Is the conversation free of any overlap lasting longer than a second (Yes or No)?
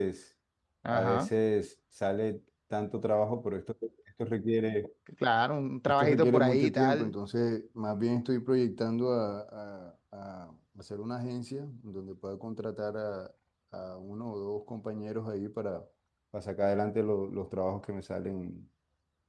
No